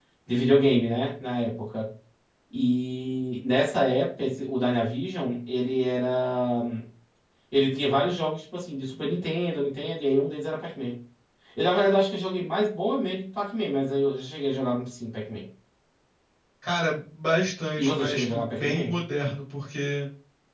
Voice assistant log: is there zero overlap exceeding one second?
No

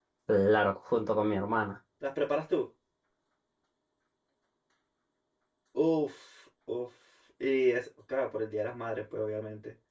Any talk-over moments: No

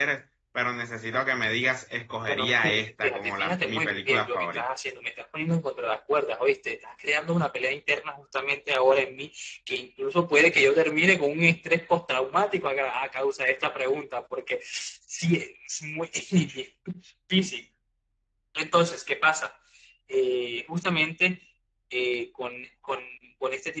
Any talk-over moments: Yes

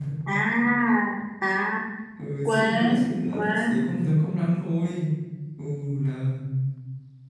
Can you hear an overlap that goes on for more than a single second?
Yes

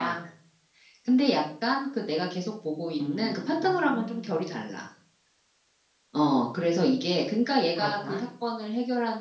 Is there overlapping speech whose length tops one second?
Yes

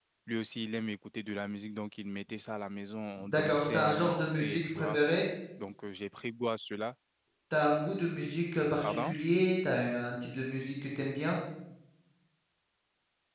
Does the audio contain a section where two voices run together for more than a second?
Yes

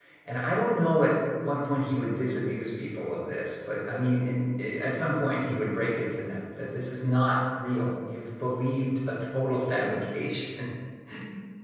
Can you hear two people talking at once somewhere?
No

